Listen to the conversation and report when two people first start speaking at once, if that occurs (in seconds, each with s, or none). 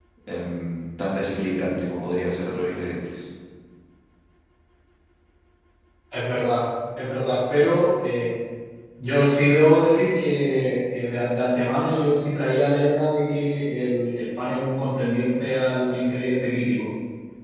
none